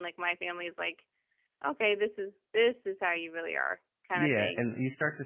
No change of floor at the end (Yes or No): No